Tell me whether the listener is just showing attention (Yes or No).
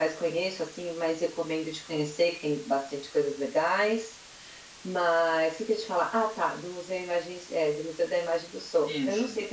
Yes